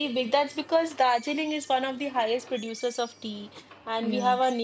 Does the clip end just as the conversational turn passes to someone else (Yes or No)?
No